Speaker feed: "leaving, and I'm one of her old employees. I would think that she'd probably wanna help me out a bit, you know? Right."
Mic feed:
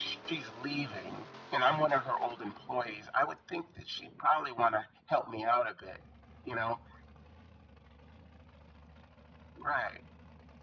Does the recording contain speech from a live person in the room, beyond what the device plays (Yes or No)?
No